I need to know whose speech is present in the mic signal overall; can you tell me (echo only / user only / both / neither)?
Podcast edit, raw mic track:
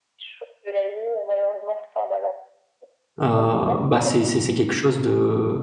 both